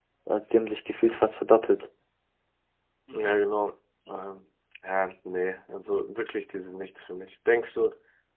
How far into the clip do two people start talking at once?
none

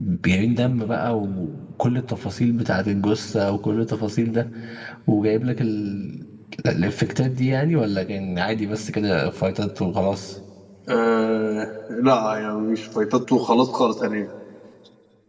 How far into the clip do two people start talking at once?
none

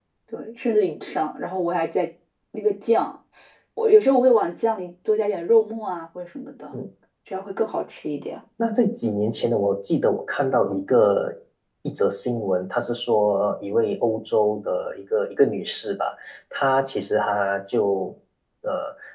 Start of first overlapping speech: none

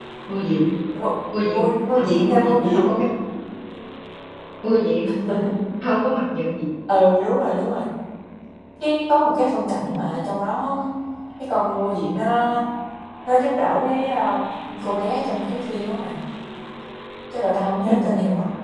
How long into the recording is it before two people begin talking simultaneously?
2 s

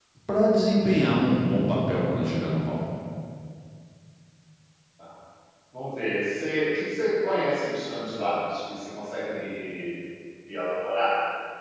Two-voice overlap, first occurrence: none

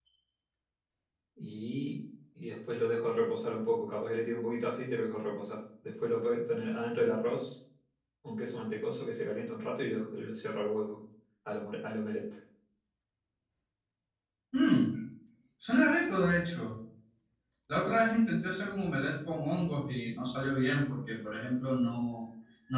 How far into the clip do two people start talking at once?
none

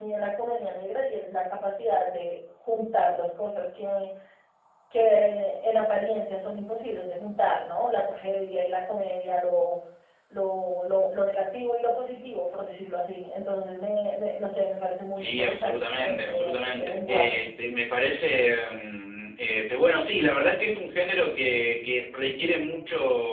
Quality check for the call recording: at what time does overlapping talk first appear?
15 s

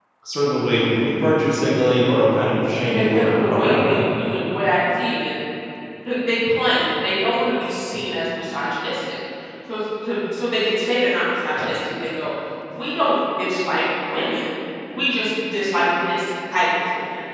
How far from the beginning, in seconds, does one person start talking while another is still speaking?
3 s

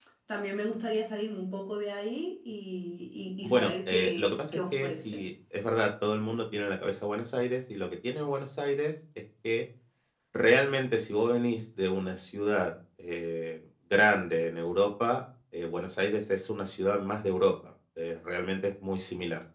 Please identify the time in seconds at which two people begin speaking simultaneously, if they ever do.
3 s

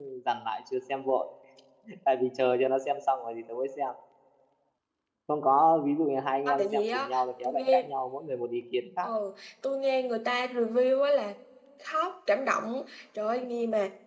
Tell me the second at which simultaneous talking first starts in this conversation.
6 s

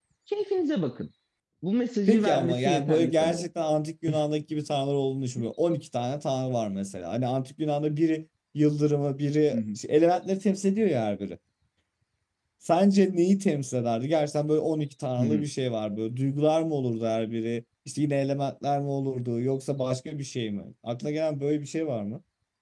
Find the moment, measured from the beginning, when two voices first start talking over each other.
2 s

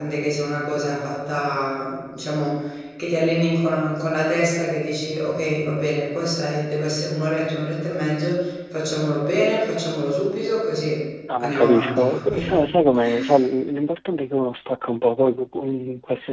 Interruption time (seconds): 11 s

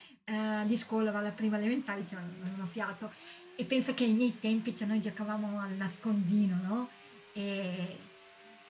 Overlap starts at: none

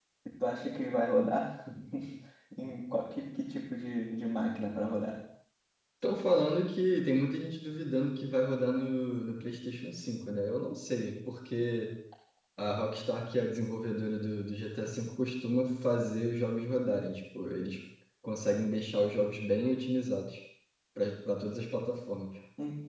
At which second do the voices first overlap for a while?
none

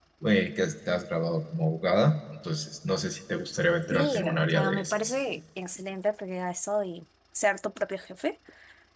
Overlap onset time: 4 s

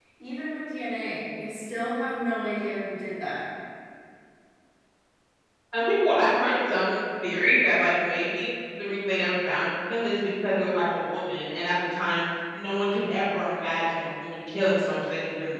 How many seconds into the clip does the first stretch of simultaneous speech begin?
none

